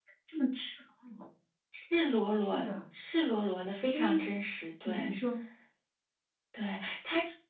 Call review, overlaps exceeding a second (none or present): none